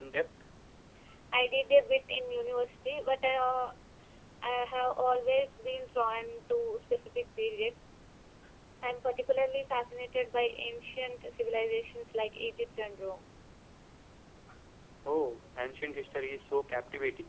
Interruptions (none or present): none